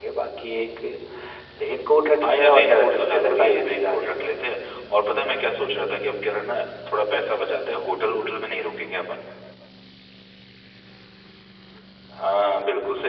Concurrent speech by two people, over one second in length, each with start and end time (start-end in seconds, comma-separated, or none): 2.2-4.3